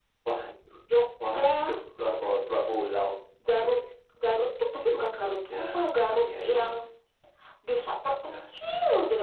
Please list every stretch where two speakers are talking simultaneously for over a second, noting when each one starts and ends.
4.8-6.7

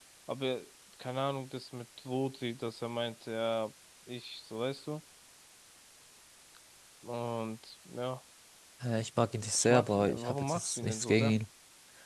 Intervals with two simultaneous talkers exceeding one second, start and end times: 9.6-11.3

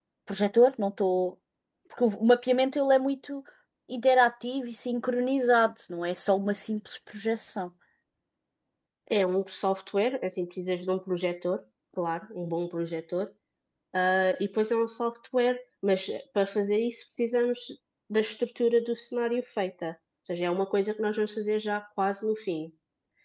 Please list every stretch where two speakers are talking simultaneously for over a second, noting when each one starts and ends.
none

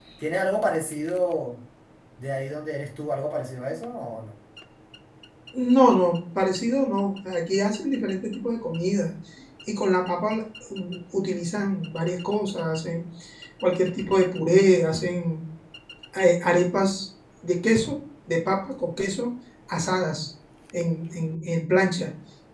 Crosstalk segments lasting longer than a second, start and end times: none

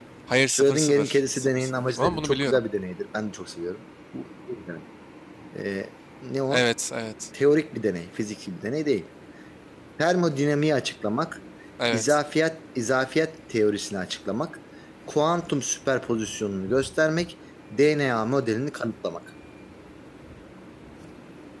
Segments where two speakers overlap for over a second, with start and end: 0.5-2.6

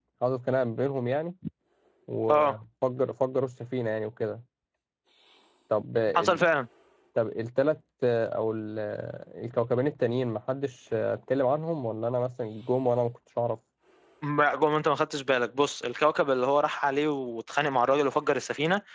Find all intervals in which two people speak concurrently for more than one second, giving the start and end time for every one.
none

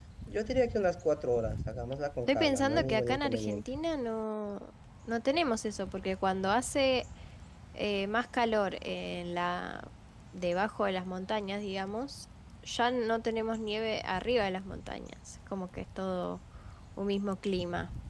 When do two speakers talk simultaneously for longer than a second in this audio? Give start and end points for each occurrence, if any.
2.3-3.6

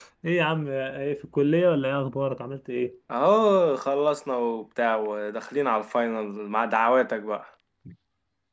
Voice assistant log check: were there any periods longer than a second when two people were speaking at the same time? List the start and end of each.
none

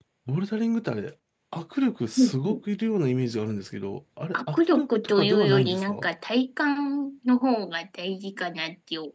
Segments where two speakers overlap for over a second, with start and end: 4.3-6.1

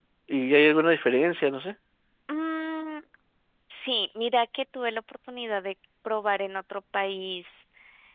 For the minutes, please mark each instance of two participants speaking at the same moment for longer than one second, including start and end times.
none

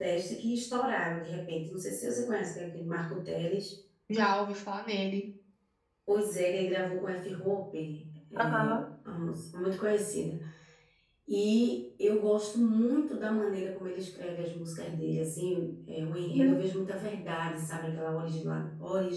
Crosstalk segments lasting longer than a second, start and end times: none

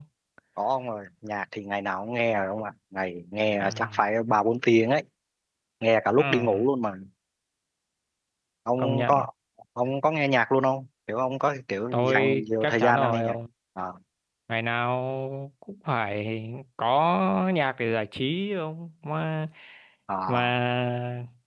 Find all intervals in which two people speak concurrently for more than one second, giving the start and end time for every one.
11.9-13.3

